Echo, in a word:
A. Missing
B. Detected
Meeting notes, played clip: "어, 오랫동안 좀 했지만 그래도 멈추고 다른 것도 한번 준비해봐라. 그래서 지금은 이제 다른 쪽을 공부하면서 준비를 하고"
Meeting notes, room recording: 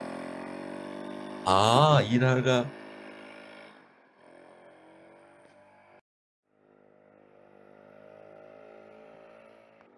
A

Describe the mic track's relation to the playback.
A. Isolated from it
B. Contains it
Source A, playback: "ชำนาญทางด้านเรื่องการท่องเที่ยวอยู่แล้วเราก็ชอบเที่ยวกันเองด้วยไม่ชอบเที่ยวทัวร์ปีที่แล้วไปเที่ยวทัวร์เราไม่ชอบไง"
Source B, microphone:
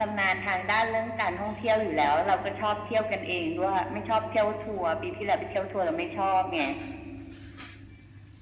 B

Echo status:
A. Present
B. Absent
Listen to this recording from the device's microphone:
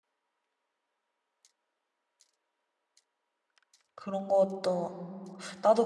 B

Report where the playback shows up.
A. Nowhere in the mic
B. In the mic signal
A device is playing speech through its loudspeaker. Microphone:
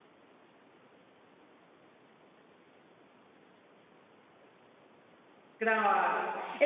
A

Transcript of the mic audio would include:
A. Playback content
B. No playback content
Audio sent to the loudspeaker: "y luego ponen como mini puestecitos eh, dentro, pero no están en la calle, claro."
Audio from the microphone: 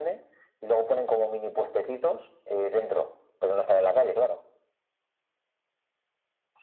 A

